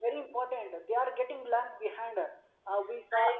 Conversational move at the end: listening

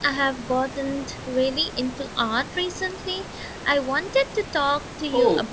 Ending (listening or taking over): taking over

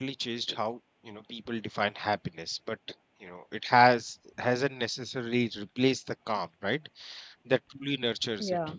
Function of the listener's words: listening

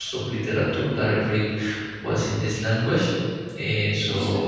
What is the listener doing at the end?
listening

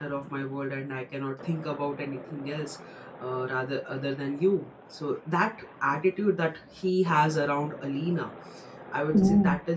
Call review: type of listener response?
listening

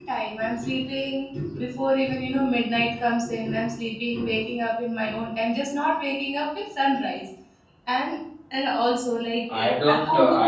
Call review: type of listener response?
taking over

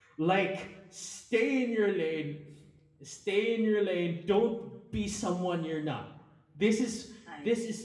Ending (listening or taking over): listening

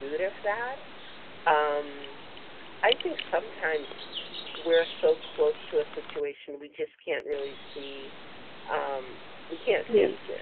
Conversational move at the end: listening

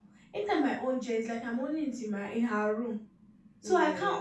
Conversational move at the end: listening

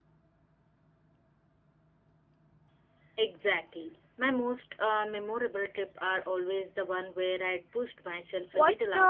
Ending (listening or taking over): taking over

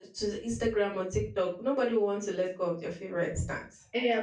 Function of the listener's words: taking over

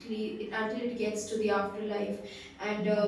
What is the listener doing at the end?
listening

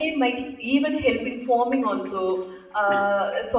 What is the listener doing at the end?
listening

